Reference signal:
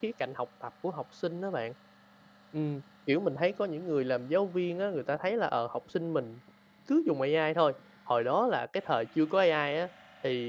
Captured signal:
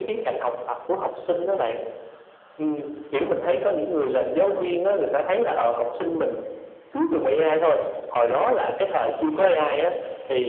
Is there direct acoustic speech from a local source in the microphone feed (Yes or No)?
No